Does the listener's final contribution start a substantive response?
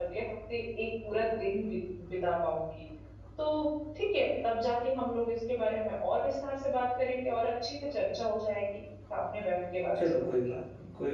Yes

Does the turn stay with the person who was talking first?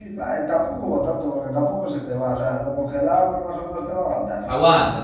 No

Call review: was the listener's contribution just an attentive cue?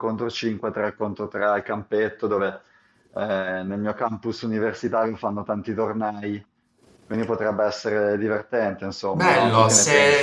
No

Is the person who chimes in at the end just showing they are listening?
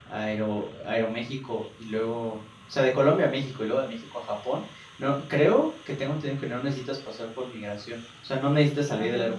No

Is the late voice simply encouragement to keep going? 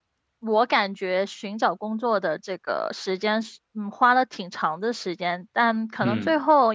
Yes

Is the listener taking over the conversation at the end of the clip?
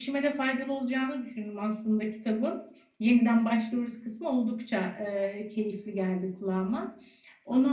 No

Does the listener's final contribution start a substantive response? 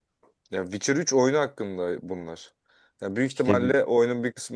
No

